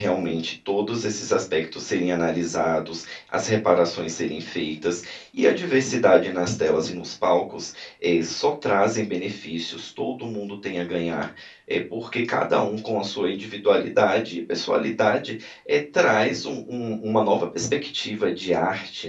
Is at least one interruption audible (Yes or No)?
No